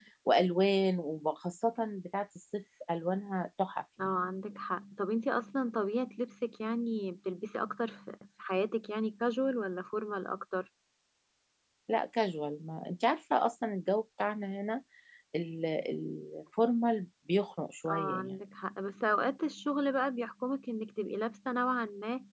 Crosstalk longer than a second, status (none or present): none